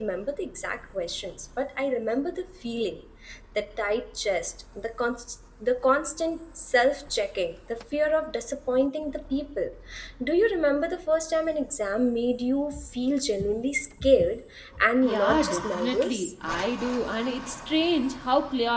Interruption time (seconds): 15.0 s

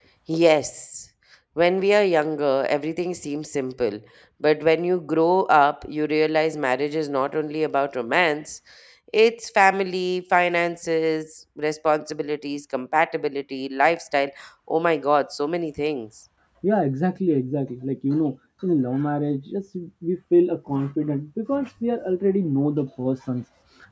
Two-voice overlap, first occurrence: none

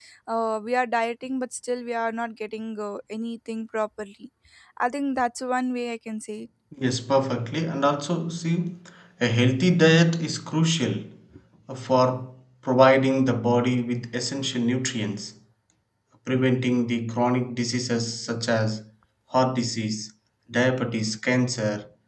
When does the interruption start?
none

